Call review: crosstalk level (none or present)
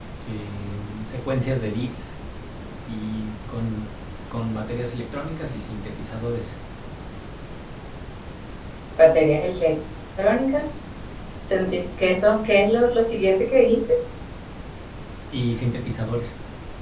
none